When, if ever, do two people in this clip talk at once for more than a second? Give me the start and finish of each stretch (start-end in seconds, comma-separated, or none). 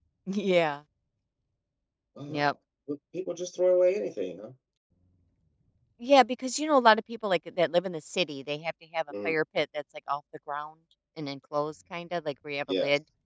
none